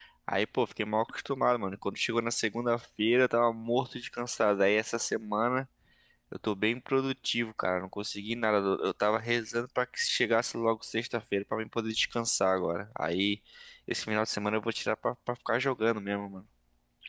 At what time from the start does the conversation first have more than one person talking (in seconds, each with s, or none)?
none